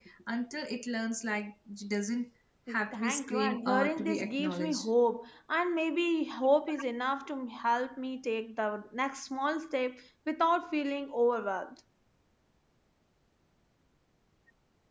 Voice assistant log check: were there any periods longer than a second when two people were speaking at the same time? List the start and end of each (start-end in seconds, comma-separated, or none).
2.9-4.9